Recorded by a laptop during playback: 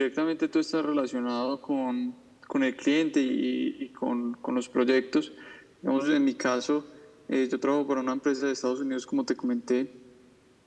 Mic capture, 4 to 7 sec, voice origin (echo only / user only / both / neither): echo only